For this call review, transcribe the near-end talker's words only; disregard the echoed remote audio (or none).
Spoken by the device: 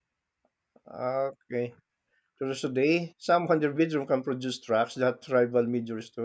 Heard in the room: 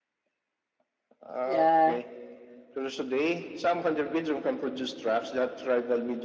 Yeah,